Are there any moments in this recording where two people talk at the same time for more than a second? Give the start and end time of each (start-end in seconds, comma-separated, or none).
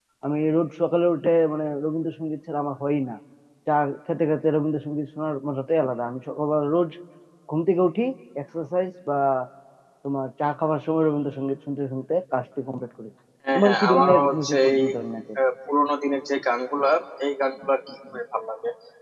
13.6-14.8